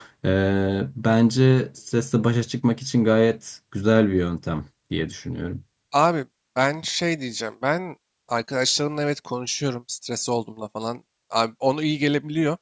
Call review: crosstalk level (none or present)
none